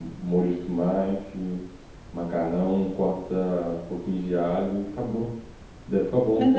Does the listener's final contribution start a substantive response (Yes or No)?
Yes